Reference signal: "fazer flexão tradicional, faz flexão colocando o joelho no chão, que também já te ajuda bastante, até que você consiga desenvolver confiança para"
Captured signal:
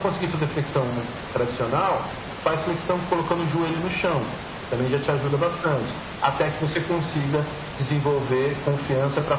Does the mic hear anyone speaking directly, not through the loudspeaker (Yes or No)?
No